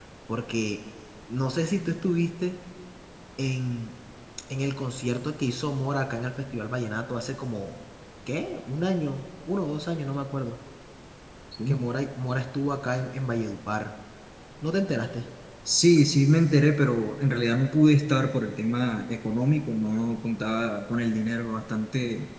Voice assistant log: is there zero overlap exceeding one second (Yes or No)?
Yes